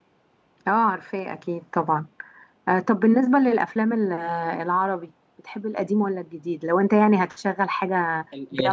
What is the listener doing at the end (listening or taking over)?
taking over